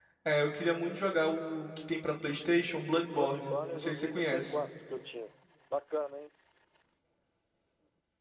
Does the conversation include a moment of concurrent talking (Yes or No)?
Yes